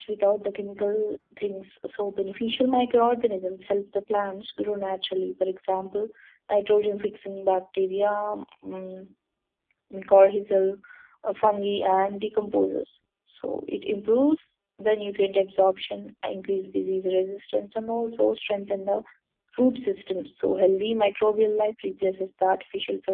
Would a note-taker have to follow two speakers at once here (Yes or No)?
No